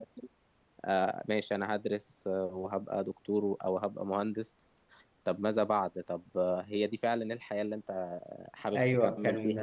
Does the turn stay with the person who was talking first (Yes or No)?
No